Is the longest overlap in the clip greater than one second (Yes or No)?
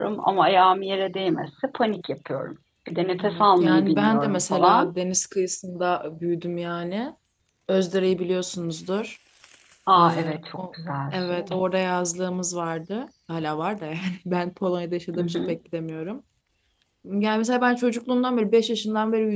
Yes